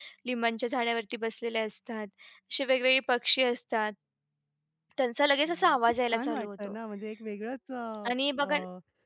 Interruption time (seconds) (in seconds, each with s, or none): 5.5 s